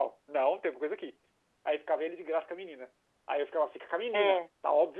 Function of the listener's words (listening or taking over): listening